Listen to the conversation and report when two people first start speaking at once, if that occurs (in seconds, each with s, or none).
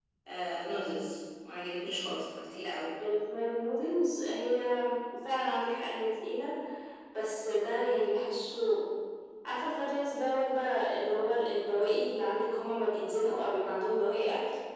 none